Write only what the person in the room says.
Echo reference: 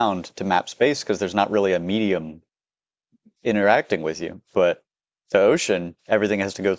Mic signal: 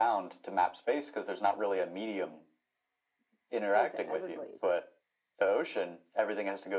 like the Everglades.

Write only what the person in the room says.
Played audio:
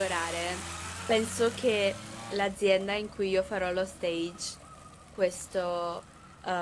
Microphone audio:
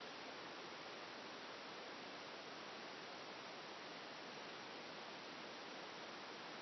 none

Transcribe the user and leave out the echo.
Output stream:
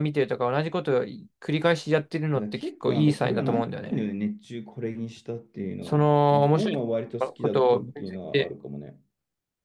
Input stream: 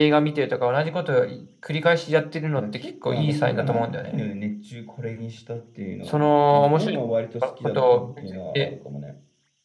none

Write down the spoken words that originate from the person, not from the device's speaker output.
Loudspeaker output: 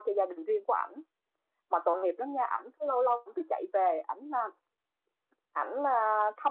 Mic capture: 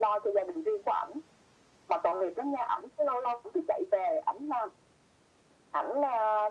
none

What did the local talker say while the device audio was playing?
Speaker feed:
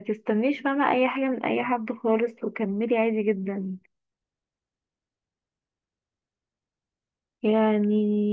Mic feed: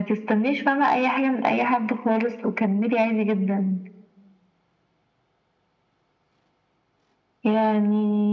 none

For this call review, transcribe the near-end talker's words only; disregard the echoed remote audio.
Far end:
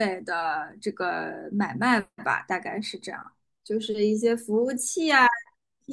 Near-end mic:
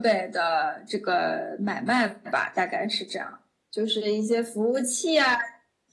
none

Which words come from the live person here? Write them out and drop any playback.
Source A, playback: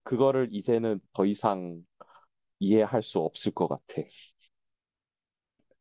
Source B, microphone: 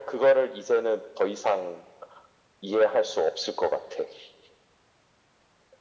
none

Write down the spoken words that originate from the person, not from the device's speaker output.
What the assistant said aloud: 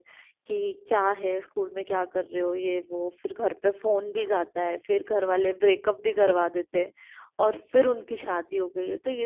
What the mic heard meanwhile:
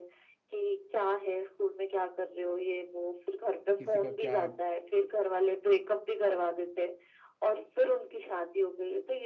किसी का क्या

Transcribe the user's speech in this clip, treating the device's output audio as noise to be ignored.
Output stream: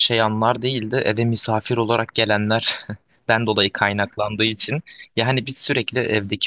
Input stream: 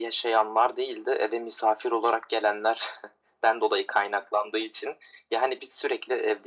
none

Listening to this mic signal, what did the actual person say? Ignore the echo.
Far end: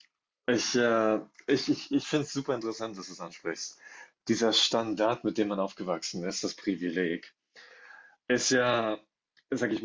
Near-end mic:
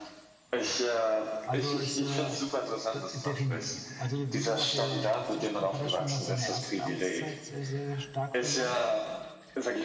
Jo, jo. Also ist äh, de- definitiv. Also wie gesagt, der Zuspruch hat er schon nach seiner ersten Amtszeit sehr, sehr, sehr stark verloren.

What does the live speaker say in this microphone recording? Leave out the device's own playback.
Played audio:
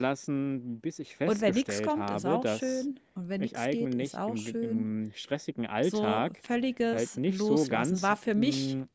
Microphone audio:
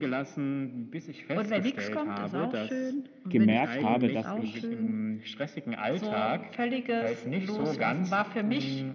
gemerkt habe, dass ich

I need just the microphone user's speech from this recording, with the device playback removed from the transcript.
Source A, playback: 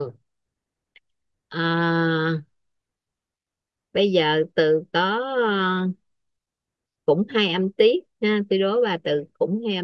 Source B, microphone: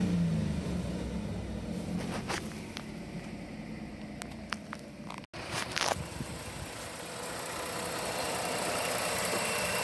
none

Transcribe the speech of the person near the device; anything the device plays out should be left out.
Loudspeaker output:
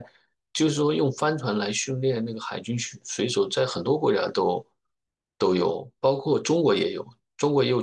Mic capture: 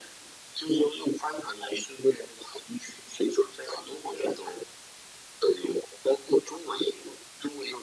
none

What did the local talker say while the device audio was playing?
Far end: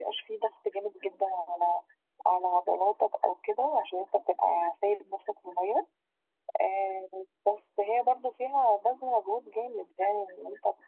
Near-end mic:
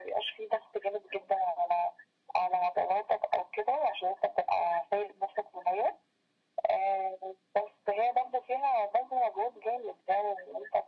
none

